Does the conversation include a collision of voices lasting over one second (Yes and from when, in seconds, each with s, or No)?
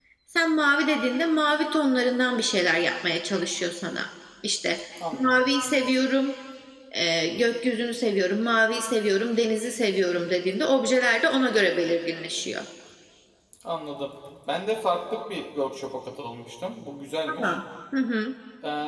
No